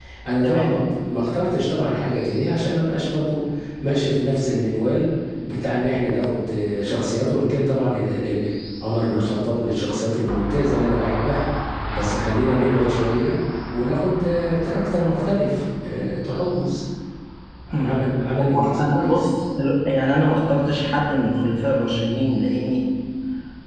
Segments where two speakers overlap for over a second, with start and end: 17.8-19.2

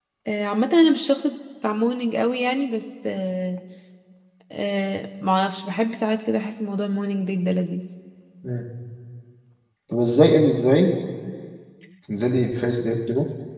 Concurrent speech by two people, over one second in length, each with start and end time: none

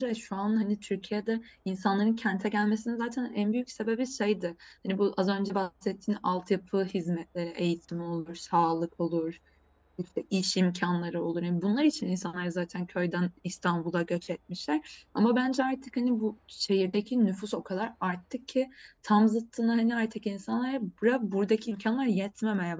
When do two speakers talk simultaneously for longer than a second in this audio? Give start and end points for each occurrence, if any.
none

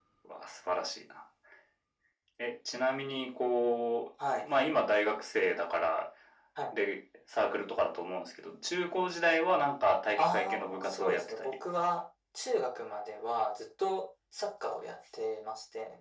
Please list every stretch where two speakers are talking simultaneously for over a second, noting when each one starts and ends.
10.2-11.5

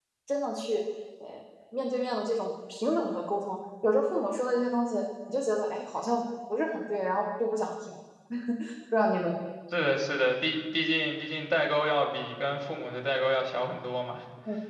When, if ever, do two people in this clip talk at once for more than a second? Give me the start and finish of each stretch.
none

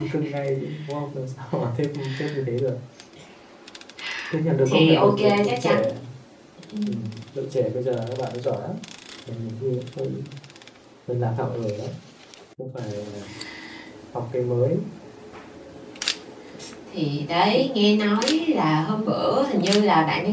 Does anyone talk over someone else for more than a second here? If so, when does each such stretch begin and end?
4.6-6.0

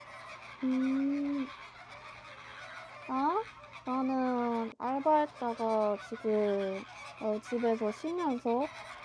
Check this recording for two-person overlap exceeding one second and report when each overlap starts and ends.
none

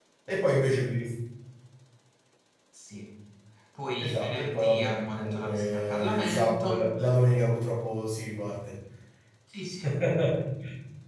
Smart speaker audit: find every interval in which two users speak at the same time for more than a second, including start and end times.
4.0-6.9

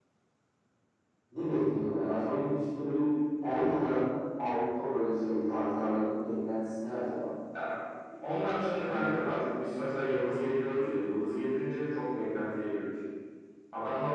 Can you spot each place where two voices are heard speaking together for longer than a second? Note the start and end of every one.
none

